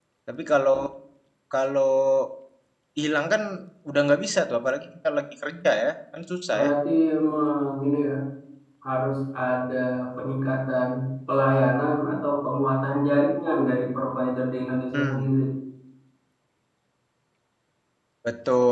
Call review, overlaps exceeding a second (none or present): none